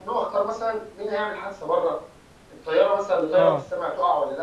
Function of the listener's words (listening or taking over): listening